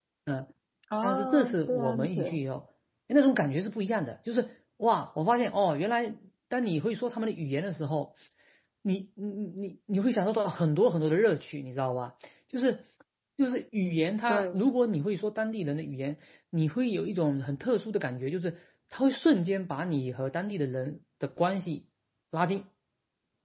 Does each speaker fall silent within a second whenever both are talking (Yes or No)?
No